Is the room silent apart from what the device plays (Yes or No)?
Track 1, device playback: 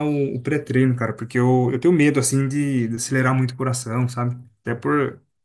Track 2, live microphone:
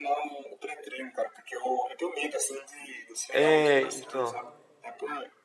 No